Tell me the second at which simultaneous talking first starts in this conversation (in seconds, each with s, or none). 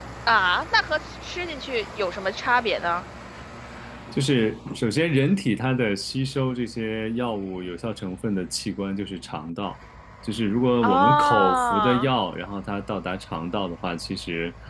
10.8 s